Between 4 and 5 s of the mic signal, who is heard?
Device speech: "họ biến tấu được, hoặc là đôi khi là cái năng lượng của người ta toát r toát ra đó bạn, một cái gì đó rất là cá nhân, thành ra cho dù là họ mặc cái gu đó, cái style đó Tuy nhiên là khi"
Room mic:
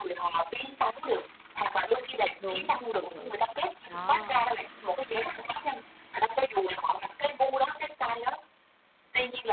both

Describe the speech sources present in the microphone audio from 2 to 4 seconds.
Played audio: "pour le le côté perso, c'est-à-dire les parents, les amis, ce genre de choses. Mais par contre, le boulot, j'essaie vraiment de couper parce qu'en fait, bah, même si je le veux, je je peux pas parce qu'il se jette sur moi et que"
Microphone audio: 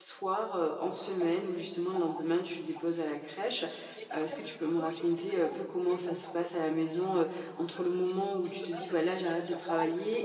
both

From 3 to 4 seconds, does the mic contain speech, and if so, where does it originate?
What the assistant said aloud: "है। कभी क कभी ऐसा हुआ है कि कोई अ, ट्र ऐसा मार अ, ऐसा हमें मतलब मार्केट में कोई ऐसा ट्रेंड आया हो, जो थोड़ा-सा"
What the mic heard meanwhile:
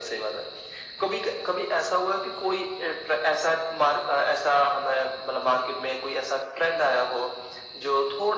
echo only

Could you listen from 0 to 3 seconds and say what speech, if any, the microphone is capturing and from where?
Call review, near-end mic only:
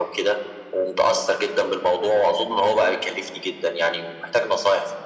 echo only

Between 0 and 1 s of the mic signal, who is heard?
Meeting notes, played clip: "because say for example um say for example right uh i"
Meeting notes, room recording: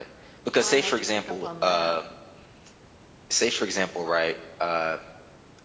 both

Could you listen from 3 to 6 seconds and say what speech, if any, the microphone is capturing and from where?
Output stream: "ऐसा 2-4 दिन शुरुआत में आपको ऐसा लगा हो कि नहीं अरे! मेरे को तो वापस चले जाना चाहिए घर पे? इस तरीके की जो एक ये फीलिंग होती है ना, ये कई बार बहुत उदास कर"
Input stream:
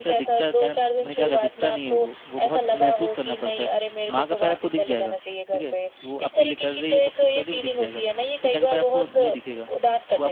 both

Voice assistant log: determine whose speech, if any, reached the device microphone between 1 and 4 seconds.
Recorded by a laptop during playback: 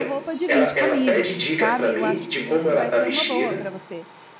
both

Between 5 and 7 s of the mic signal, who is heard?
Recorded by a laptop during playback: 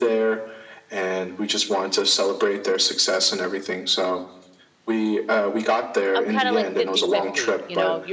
both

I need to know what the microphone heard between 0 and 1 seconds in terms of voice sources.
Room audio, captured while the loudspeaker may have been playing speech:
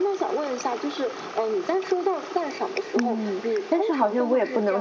echo only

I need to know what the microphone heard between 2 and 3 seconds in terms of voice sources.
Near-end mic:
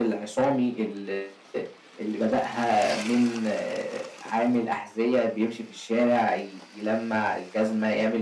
echo only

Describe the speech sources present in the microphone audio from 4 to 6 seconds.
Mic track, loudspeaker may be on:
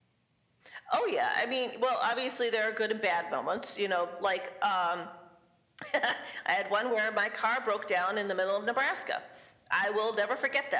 echo only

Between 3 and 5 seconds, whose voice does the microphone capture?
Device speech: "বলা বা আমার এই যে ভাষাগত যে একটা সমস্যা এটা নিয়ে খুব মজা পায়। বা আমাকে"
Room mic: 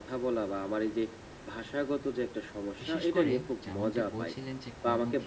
both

